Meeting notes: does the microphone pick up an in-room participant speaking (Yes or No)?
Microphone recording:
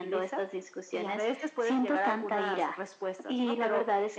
No